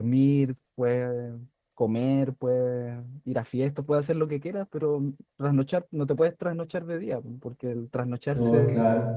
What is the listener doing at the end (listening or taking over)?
listening